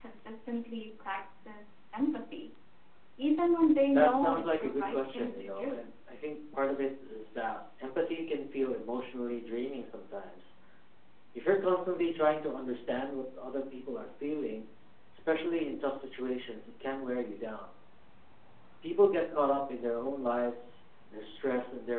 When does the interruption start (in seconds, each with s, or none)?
3.9 s